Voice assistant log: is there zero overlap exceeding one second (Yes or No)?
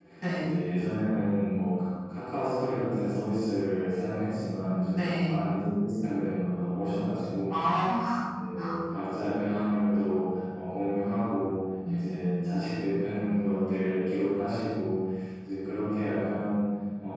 Yes